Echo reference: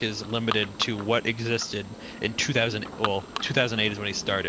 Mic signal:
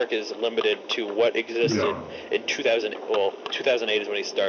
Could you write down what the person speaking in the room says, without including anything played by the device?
yeah.

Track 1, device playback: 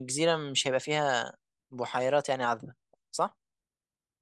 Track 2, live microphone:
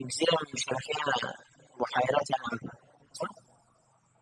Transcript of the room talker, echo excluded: none

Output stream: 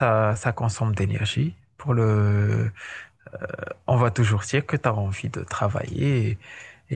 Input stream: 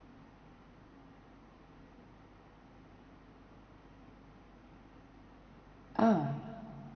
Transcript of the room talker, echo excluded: Ah,

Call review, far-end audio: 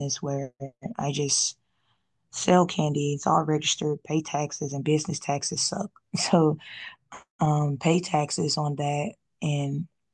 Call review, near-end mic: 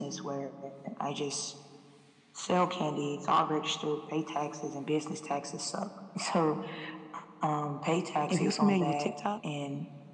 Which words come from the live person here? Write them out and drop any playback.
if you're familiar with TikTok,

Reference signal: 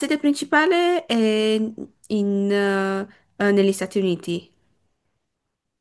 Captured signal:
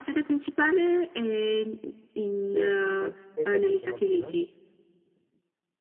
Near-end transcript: Tu invece, cosa hai fatto stamattina?

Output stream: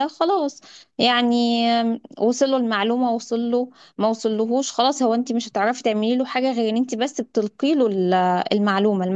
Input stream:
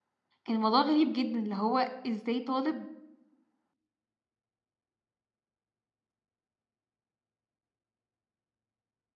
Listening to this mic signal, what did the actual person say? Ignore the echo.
كان الموضوع غريب جدا اللي هو ازاي طالب

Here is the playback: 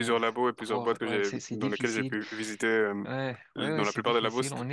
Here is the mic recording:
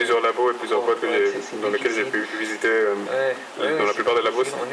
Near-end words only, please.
none

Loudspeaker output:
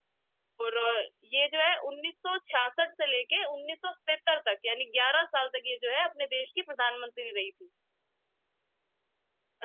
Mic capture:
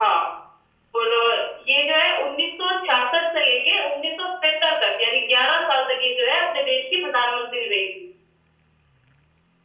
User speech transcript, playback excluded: none

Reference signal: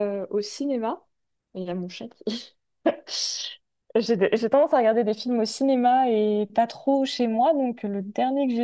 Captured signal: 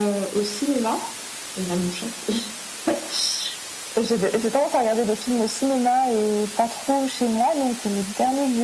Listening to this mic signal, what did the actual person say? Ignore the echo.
none

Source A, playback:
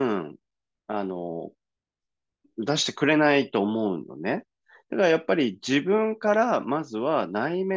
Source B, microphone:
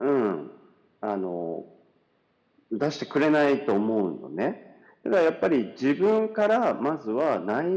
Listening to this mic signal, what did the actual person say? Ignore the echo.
none

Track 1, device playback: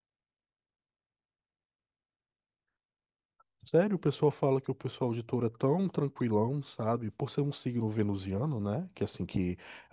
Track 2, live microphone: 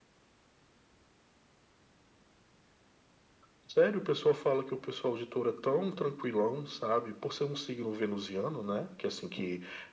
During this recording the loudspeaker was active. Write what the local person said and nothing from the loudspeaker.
none

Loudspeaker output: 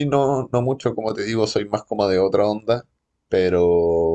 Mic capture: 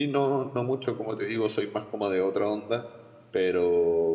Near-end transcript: none

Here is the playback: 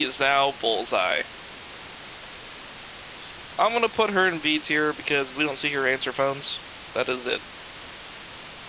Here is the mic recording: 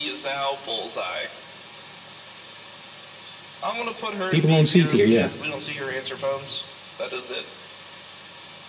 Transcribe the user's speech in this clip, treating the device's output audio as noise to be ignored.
People on C tier, yeah.

